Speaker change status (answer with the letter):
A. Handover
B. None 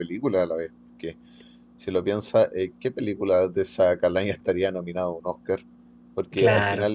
B